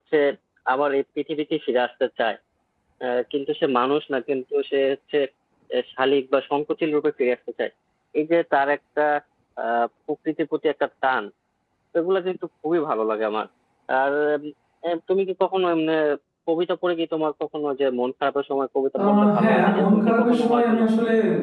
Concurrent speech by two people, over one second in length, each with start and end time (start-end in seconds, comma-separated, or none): 19.1-20.9